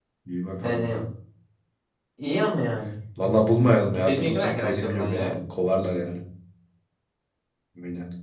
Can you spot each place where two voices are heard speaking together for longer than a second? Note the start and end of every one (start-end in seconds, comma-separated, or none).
4.1-5.4